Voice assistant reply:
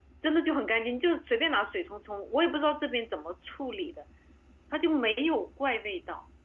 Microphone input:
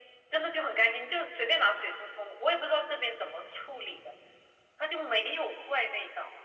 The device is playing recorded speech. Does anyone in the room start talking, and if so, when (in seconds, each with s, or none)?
none